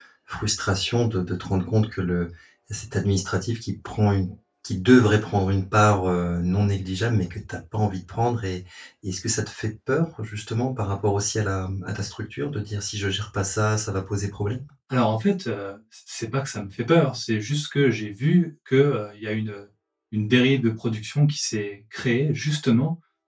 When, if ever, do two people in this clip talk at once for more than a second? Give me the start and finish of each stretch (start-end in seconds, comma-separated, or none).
none